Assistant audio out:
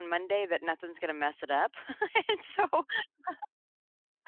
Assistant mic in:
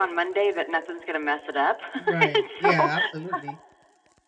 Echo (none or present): present